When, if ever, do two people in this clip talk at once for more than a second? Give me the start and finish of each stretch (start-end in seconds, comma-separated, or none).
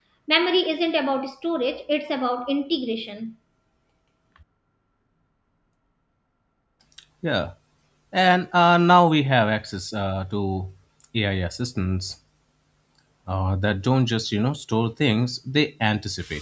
none